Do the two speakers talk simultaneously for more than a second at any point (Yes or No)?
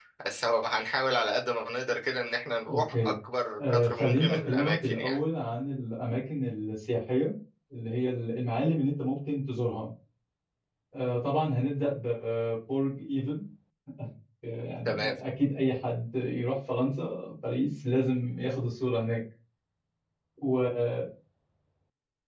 Yes